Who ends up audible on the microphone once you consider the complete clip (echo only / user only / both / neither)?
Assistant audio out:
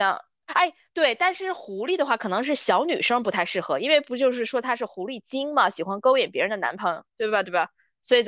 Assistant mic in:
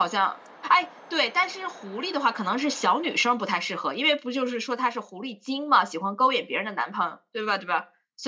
echo only